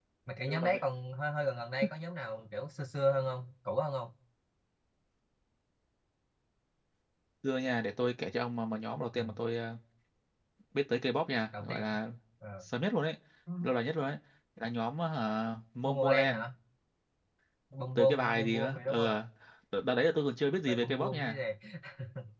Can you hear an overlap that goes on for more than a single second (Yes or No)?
Yes